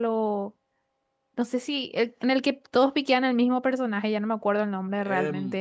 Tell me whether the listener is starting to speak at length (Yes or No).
Yes